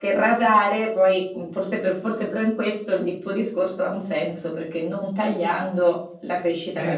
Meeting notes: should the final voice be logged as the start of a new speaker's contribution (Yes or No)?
Yes